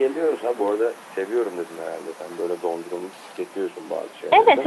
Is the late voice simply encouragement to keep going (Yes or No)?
No